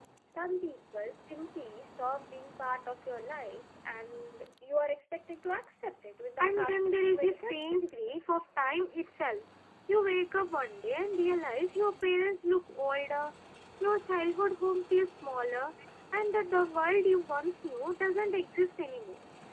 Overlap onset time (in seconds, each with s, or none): 6.4 s